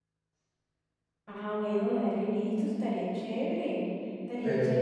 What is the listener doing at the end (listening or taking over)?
listening